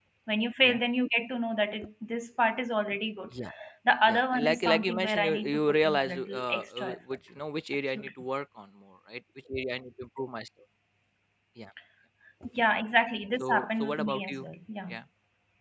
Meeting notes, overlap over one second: present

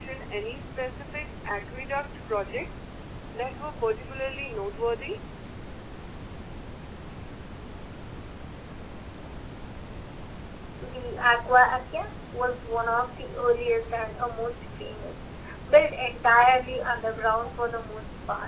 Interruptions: none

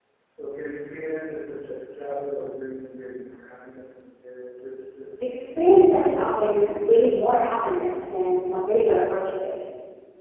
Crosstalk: none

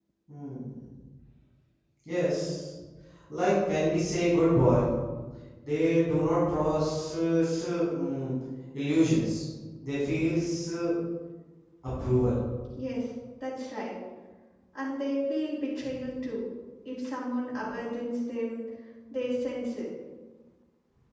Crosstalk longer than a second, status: none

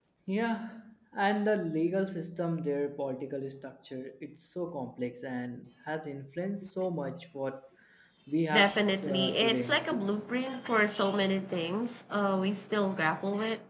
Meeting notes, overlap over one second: present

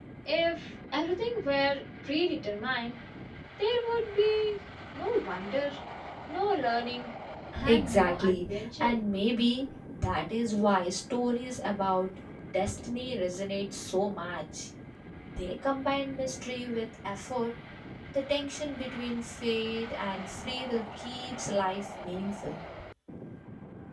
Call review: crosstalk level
present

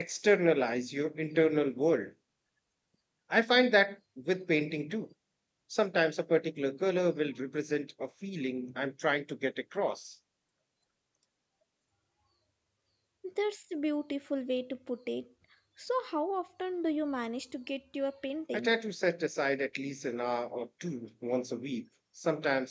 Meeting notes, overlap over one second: none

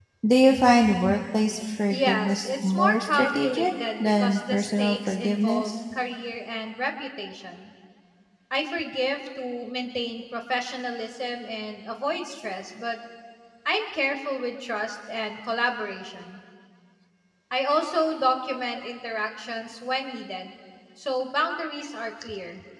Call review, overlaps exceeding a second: present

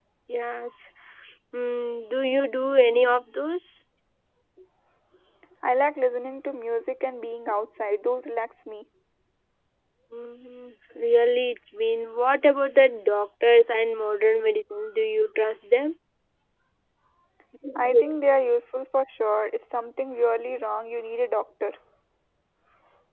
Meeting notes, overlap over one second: none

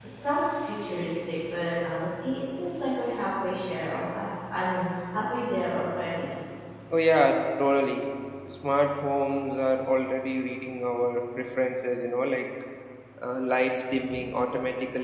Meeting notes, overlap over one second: none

